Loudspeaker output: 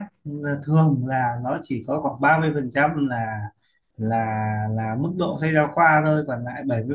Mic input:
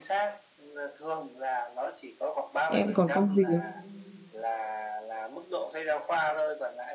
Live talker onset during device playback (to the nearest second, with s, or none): 3 s